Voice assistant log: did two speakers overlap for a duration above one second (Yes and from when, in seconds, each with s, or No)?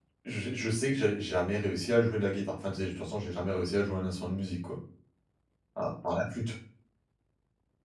No